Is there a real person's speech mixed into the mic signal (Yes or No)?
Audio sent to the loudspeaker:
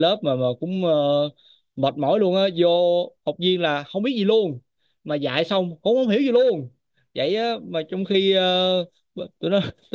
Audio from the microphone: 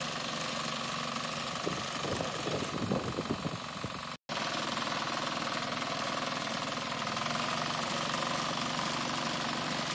No